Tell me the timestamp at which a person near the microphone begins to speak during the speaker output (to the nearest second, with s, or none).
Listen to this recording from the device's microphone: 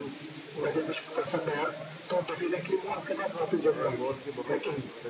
4 s